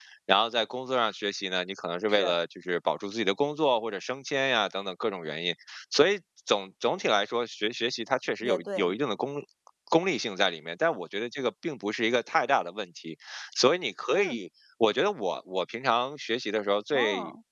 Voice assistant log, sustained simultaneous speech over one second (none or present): none